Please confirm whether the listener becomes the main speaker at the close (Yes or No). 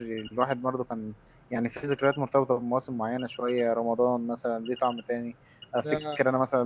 No